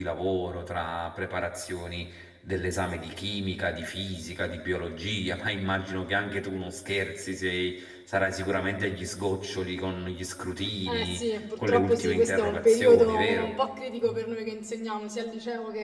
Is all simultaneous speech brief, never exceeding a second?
No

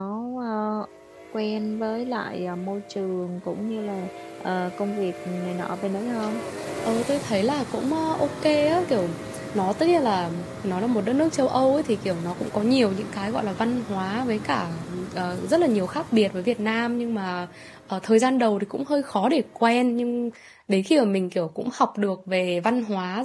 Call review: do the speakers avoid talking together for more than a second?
Yes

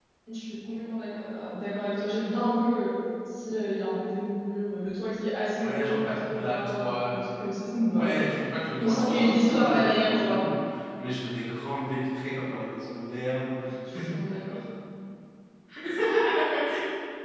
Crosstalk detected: Yes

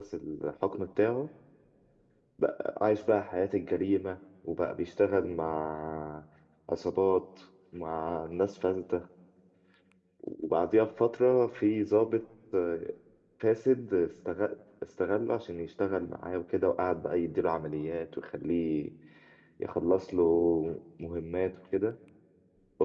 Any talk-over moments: No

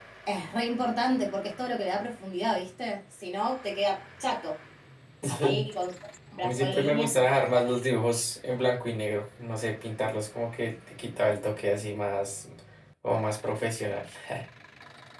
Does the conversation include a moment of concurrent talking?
Yes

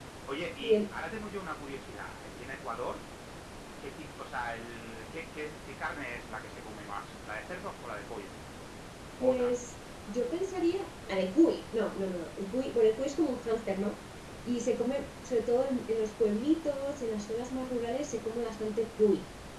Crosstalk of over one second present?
No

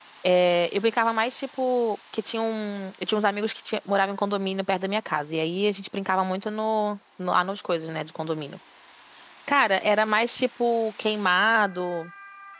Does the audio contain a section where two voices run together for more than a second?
No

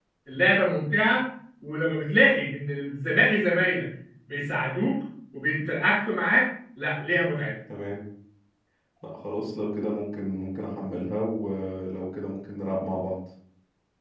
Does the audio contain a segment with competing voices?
No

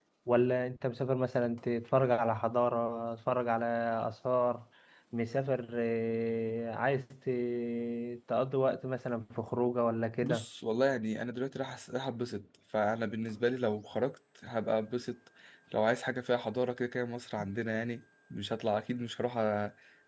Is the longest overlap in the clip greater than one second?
No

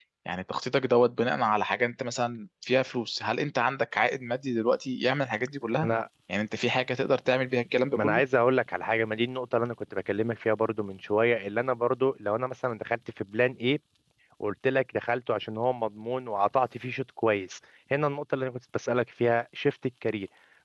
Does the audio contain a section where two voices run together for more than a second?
No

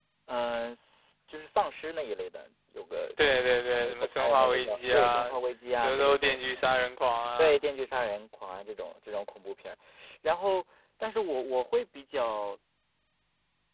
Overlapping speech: Yes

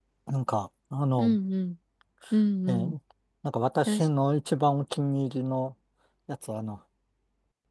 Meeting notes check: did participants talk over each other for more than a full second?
No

